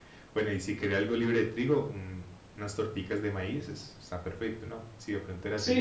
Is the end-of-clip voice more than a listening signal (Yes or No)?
Yes